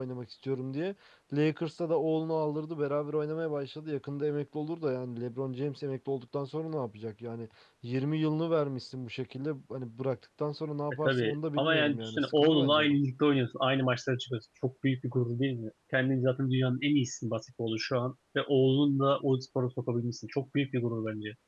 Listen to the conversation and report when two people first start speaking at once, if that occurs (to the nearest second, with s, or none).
11 s